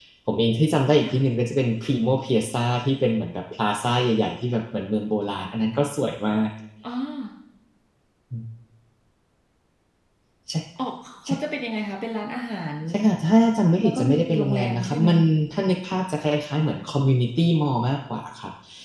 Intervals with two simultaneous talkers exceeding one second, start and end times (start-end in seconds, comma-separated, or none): 13.8-15.1